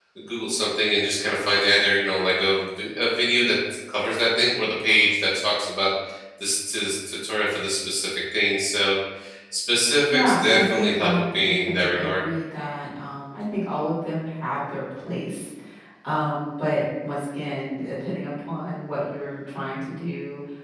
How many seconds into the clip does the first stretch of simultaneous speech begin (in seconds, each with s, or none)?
10.1 s